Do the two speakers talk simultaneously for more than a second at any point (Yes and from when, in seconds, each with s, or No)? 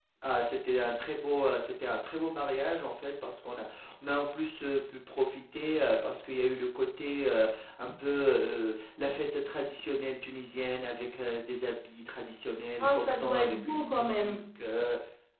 Yes, from 12.8 s